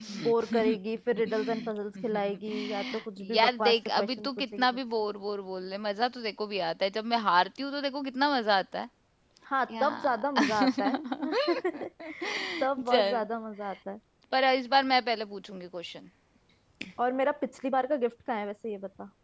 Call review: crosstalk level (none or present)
present